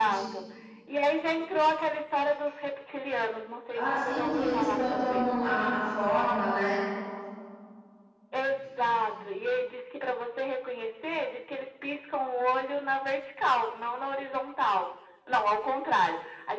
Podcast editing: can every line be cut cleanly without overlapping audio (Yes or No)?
No